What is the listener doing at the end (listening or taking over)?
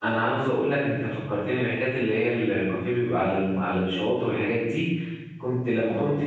listening